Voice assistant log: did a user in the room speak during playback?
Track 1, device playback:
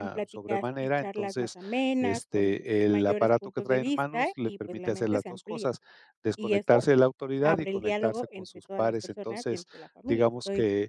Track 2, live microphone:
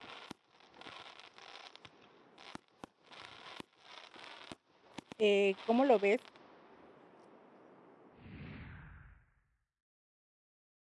Yes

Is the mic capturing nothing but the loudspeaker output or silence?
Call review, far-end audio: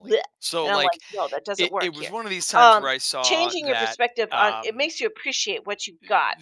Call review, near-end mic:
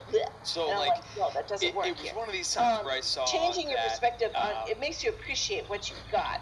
Yes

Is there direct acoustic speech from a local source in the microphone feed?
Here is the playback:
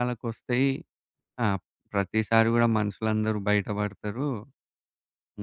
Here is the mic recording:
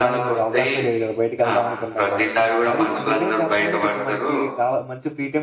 Yes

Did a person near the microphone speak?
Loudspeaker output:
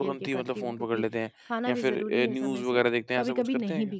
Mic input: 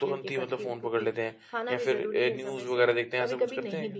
No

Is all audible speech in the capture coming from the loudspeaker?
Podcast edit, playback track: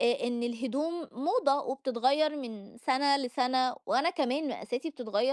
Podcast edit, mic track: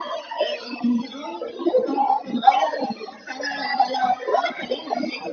Yes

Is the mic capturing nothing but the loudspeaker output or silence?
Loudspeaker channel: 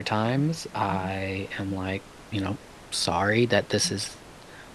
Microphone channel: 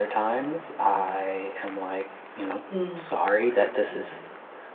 No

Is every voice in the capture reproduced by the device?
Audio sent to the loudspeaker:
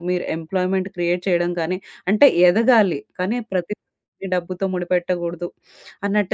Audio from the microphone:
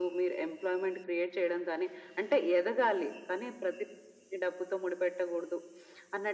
Yes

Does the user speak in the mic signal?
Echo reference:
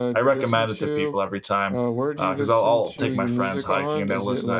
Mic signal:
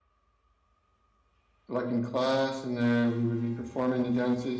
Yes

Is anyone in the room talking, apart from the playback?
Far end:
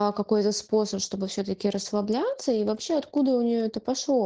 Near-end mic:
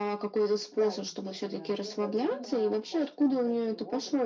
Yes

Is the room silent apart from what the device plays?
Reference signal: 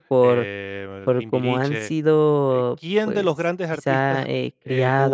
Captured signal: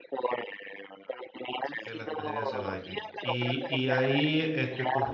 No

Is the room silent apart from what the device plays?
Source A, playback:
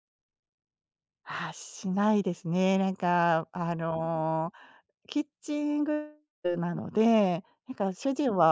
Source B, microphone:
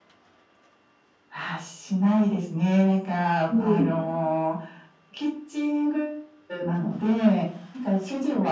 No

